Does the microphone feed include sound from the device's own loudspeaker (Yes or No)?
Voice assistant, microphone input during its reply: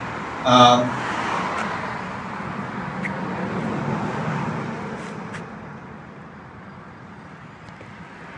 No